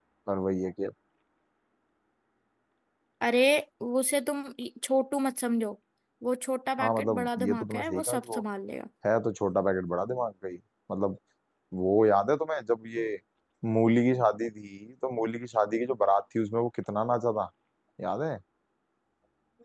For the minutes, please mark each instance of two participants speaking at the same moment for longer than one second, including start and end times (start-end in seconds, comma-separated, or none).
6.8-8.4